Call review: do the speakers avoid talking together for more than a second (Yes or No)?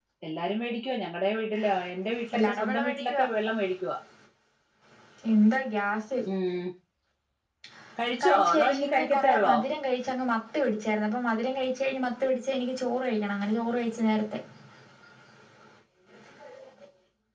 No